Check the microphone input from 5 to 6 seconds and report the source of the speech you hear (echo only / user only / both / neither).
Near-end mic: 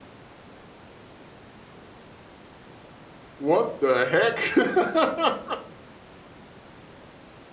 user only